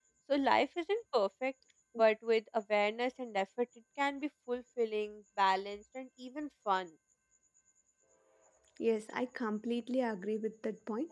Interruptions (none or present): none